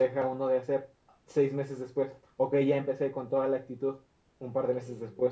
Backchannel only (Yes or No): Yes